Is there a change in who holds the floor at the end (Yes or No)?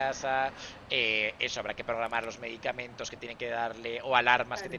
No